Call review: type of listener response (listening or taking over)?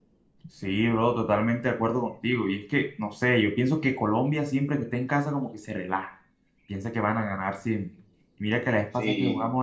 listening